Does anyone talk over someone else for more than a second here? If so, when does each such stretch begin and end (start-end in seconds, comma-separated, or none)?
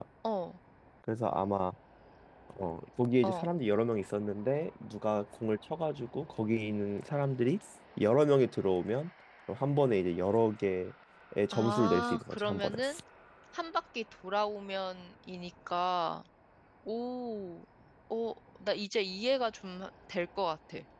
11.5-12.8